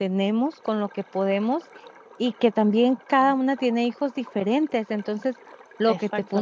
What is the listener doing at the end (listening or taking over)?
listening